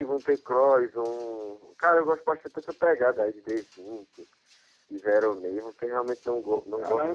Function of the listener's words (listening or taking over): taking over